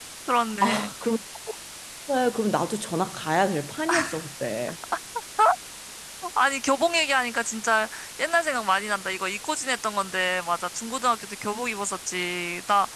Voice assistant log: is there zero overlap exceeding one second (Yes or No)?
Yes